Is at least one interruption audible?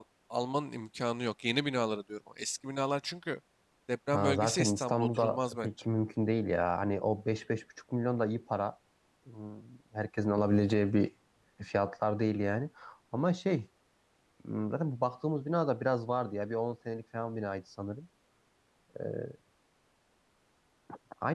Yes, from 4.1 s

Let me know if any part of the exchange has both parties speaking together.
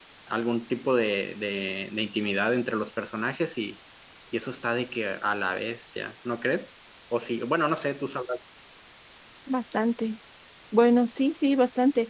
No

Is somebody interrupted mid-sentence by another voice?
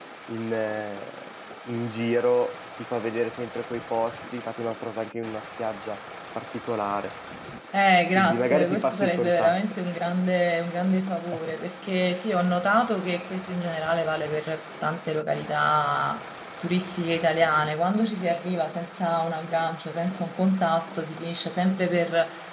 Yes, from 8.2 s

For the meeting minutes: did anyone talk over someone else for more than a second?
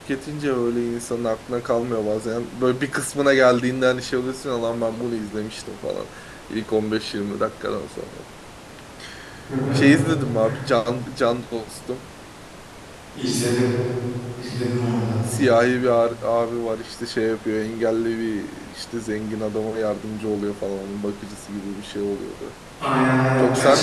No

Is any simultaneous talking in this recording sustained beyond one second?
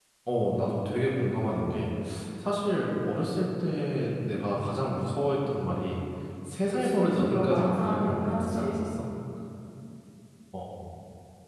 Yes, from 6.7 s

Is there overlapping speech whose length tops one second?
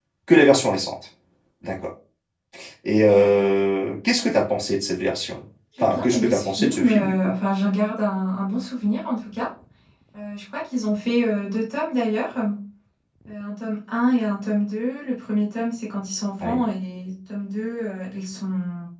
Yes, from 5.8 s

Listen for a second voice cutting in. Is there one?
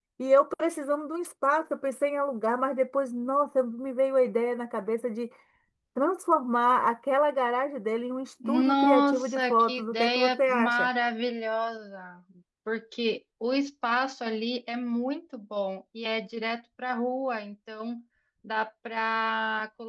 Yes, from 8.4 s

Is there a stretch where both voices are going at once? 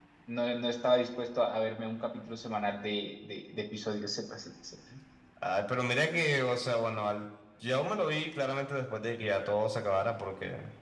No

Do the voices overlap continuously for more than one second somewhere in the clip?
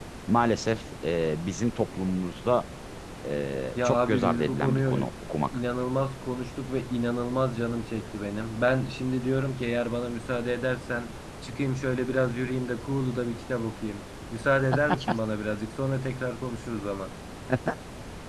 Yes, from 3.8 s

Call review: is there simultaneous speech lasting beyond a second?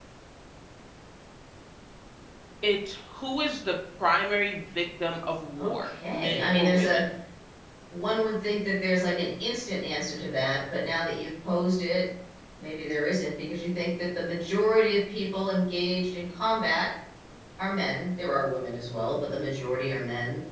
Yes, from 5.6 s

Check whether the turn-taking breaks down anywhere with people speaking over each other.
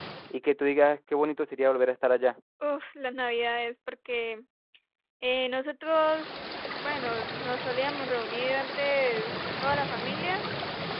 No

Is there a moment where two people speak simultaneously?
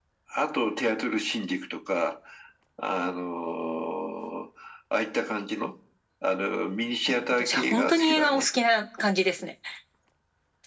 Yes, from 7.1 s

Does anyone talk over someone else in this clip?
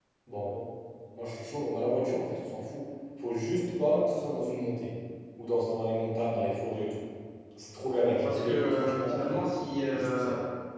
Yes, from 8.2 s

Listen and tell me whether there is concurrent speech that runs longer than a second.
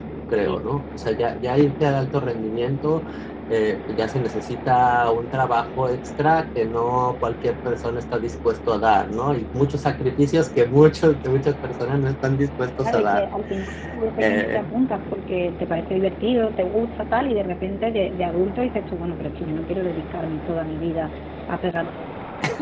No

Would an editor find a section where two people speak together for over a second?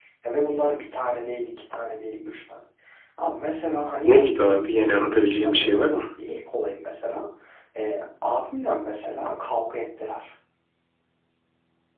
Yes, from 4.1 s

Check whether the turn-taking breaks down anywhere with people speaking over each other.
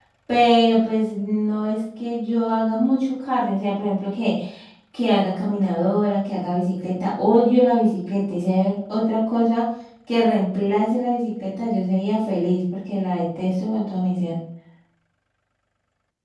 No

